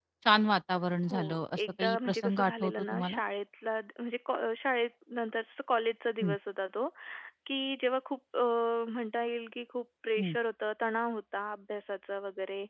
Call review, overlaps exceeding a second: present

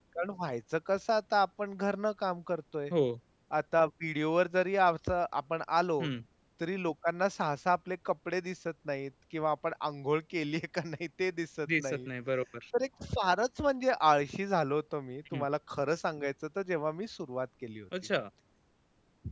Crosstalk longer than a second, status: none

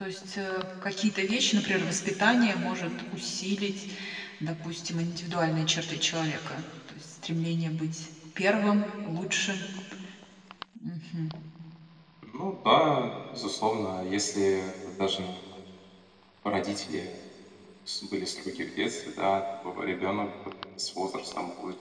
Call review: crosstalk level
none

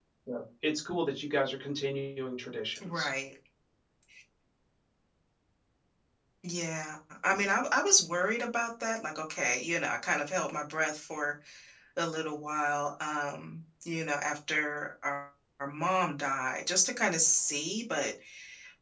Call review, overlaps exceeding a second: none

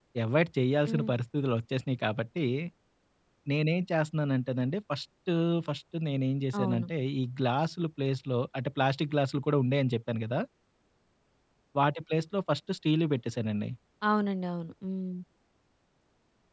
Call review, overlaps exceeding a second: none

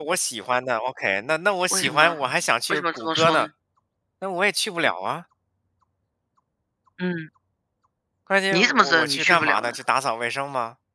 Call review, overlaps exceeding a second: present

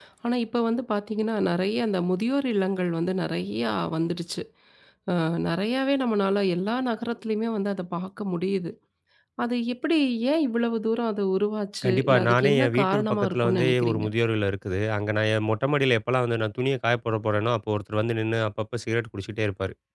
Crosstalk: present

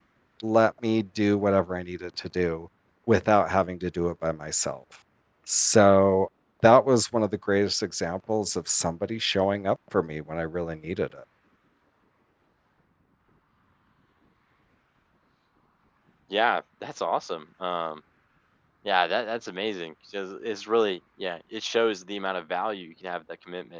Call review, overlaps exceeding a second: none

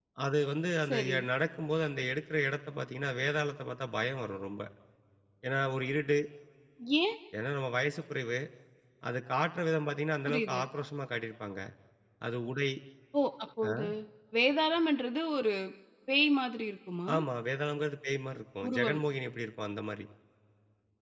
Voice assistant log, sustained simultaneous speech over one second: none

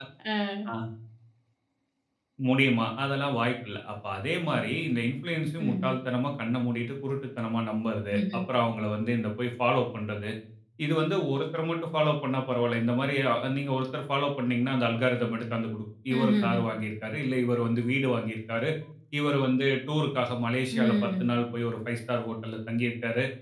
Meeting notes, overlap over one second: none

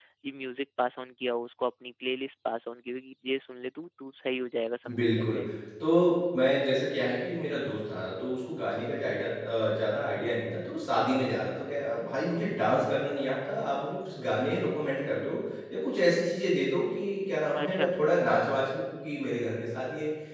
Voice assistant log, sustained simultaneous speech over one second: none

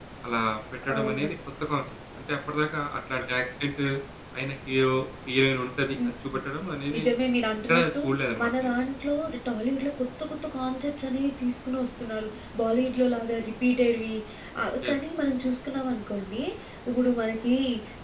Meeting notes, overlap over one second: none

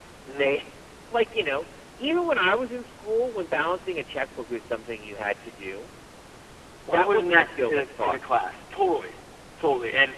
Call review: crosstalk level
present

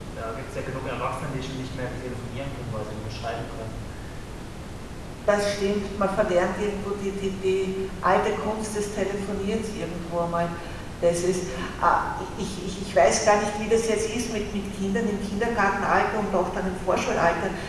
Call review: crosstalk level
none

